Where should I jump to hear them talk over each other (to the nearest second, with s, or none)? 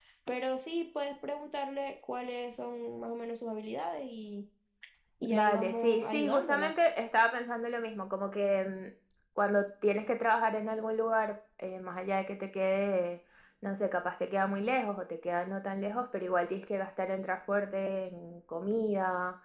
5 s